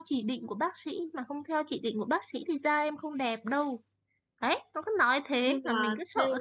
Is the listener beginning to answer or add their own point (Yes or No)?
Yes